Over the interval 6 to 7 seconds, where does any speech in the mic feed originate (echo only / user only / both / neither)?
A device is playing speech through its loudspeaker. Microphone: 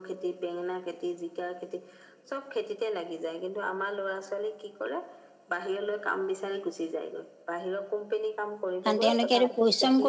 echo only